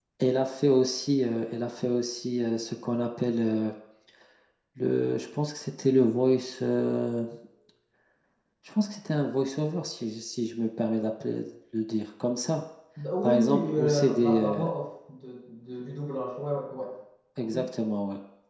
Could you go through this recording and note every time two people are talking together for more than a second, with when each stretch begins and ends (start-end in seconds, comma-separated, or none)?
13.2-14.6